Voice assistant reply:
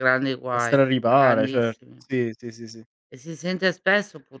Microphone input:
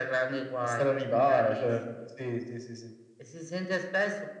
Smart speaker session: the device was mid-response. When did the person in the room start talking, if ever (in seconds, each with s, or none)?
none